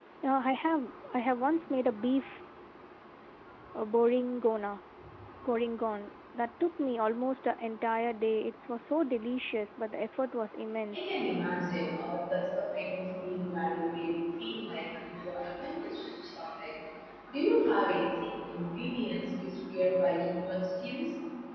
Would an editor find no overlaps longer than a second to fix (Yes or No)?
Yes